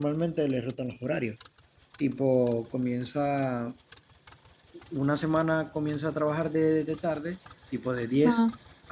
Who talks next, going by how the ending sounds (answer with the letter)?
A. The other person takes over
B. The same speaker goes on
B